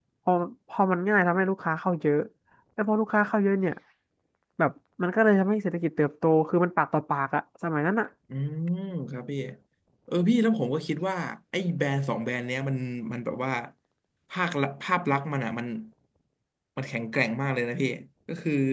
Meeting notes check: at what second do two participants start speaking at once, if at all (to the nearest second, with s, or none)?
none